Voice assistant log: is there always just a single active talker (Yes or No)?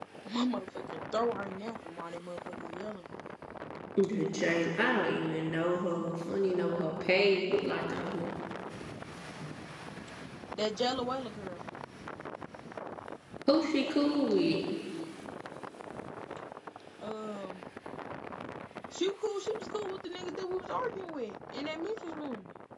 Yes